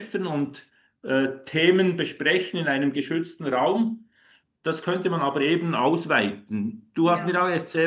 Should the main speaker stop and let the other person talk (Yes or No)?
No